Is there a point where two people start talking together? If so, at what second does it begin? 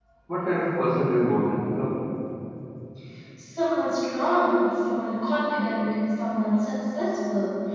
none

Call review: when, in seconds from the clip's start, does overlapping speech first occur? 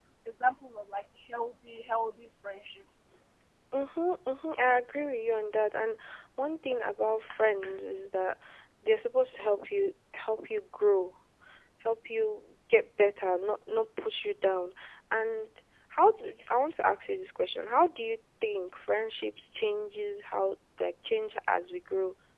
none

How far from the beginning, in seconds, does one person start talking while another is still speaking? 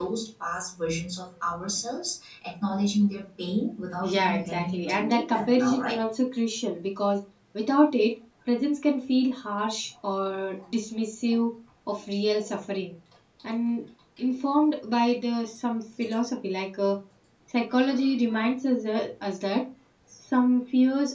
4.0 s

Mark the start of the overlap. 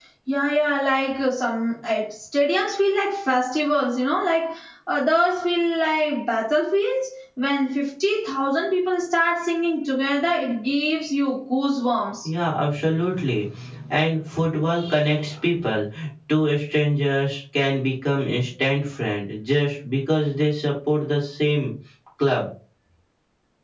none

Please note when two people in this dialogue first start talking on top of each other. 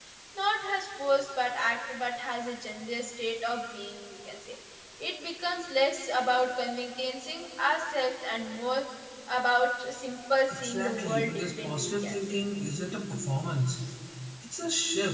10.5 s

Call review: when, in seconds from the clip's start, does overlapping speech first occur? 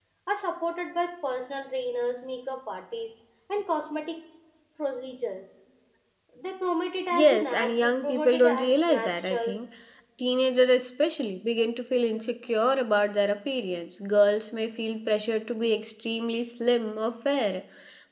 7.1 s

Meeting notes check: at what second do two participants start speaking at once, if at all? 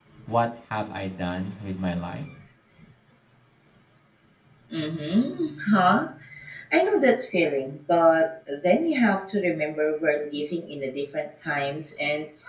none

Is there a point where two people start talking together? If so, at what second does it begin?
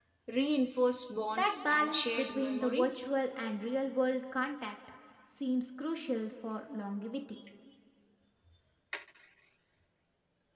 1.4 s

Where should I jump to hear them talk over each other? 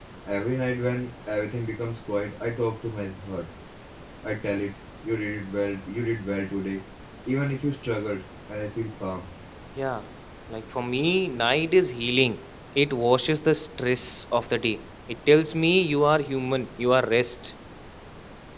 none

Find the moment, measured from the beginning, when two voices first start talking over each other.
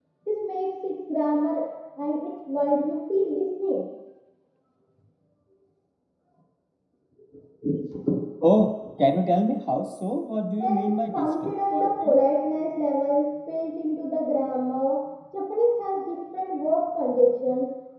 10.6 s

